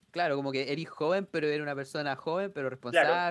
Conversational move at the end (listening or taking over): taking over